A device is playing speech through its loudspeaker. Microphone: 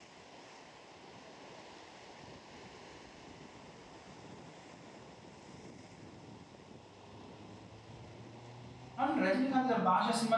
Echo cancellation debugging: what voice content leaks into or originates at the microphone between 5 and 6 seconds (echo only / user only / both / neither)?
neither